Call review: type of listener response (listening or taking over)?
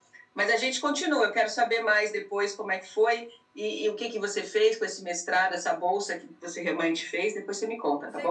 taking over